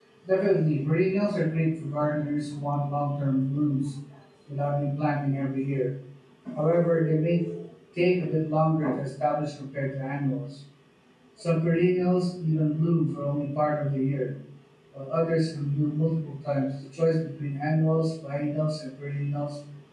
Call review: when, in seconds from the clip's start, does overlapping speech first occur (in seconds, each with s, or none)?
none